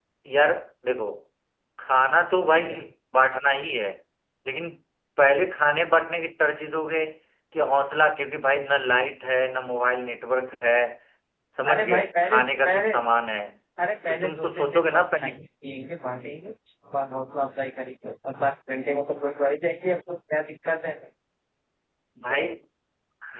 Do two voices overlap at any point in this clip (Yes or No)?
Yes